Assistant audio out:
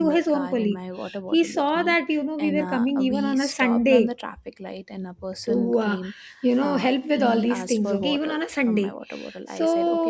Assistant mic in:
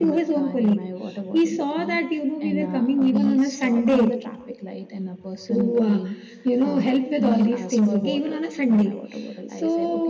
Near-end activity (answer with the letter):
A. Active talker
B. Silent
B